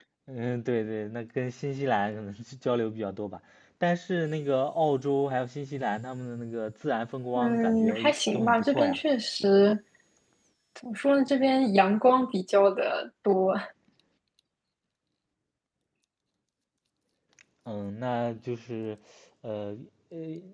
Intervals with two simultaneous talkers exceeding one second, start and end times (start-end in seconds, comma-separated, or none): 7.4-9.0